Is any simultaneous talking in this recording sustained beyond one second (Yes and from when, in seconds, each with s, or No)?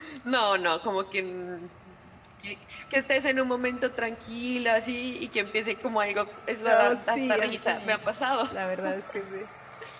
Yes, from 6.7 s